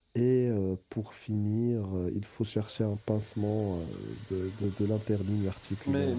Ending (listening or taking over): taking over